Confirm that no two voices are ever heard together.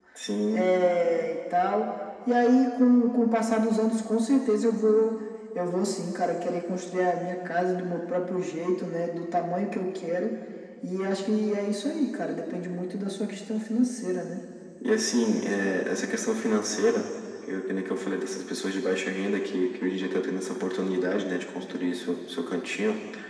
Yes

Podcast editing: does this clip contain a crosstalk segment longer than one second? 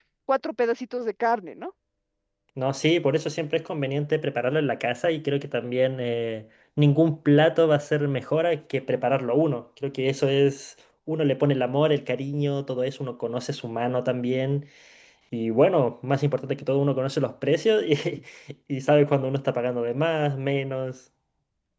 No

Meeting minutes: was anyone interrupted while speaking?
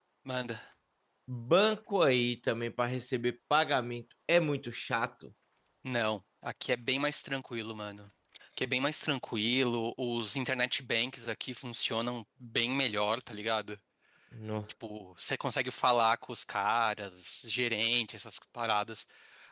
No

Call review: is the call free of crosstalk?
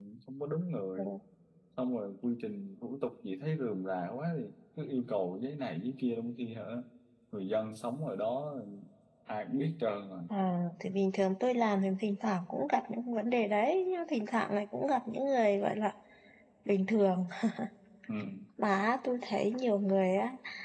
Yes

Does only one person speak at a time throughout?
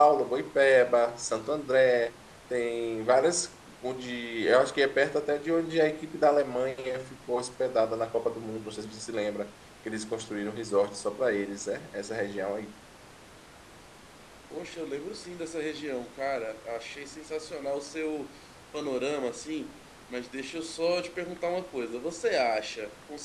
Yes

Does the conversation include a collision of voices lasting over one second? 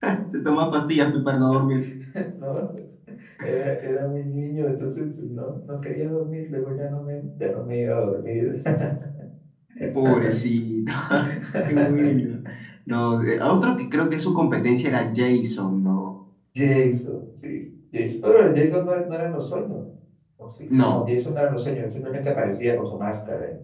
No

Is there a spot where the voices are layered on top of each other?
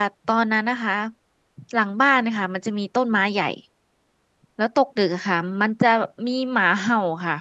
No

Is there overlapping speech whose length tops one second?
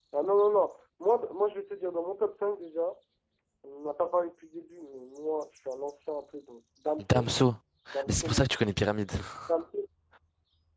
No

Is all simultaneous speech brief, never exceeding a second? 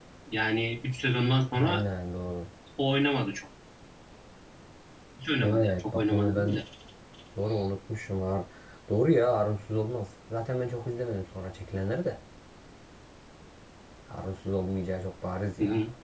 No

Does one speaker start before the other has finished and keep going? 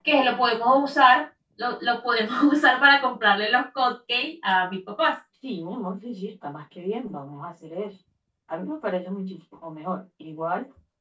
No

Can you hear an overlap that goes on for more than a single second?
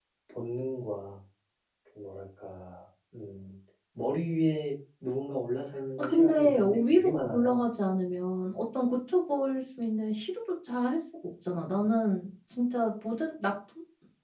Yes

